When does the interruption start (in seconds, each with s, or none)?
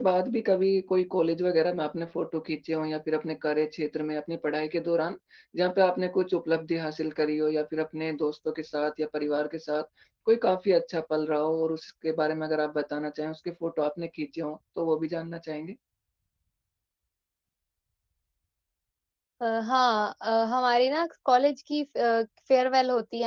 none